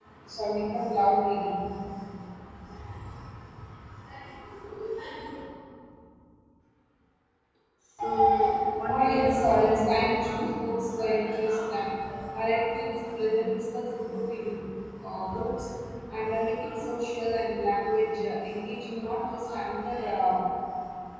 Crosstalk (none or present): present